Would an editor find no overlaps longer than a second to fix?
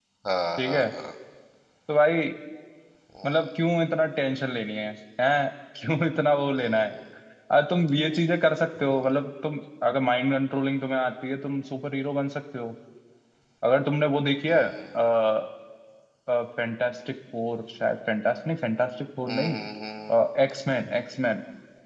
Yes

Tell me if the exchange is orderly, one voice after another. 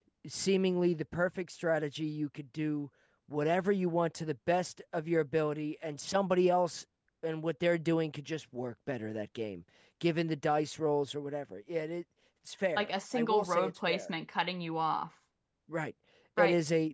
No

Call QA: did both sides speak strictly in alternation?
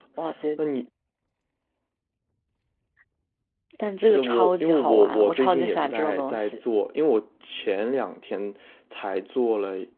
No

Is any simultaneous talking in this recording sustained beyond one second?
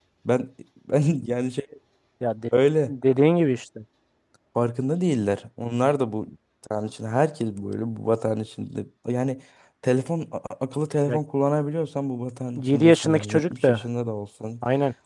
Yes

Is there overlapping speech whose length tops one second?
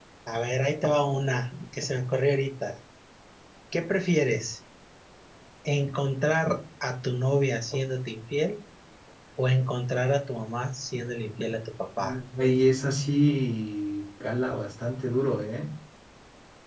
No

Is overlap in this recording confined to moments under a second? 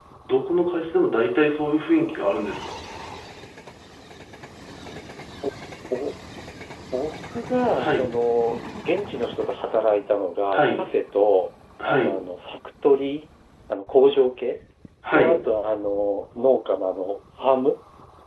Yes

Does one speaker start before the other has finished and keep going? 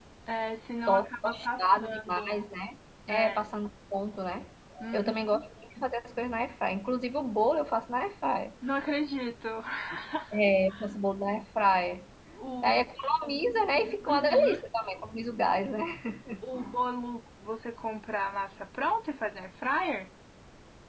Yes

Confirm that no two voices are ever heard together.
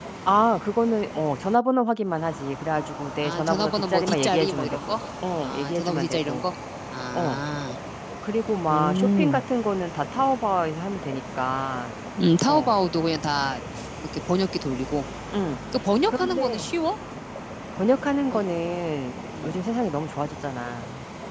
No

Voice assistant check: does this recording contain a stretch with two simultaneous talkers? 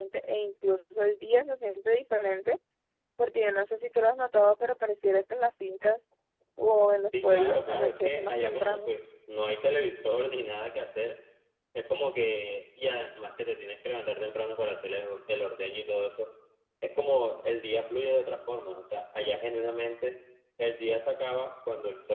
Yes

